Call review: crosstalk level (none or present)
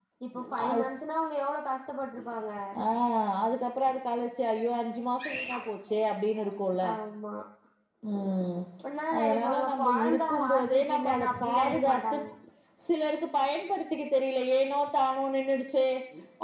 present